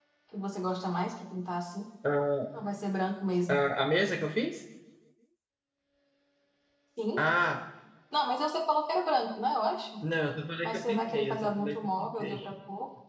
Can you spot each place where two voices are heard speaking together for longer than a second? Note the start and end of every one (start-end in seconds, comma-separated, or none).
10.6-12.4